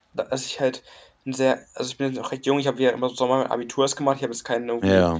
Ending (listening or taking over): listening